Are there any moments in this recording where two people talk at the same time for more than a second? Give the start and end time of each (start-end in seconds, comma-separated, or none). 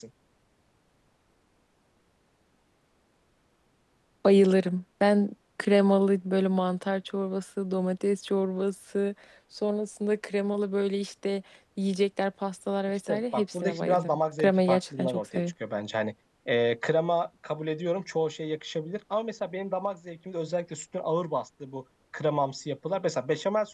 12.9-15.5